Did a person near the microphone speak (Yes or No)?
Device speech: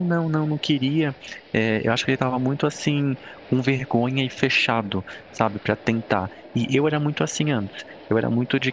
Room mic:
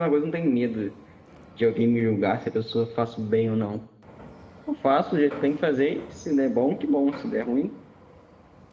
Yes